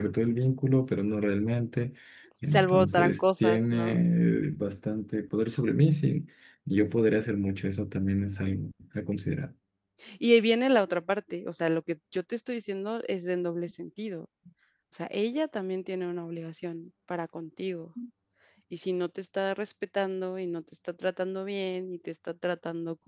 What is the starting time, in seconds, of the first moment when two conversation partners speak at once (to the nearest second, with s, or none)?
2 s